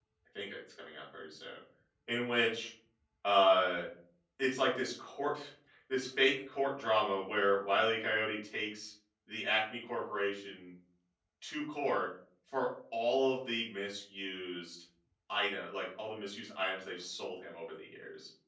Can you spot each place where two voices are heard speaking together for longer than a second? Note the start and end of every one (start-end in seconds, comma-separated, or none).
none